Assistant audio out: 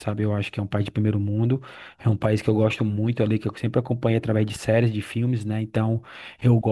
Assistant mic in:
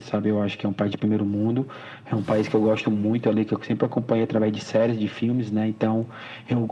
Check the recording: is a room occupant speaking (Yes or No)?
No